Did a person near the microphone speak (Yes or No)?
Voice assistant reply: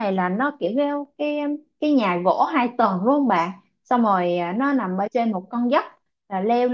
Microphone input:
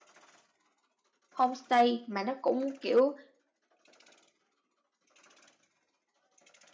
Yes